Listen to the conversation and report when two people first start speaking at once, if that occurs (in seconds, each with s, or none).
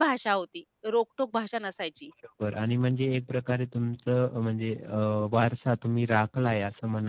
none